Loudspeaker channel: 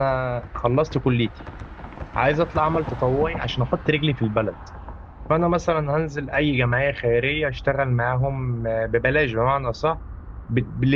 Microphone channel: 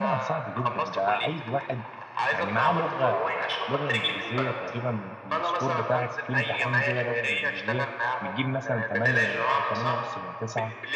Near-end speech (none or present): present